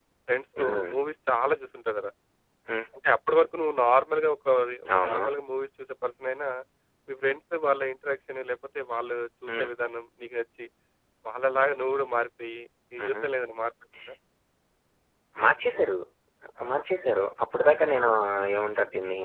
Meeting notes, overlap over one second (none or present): none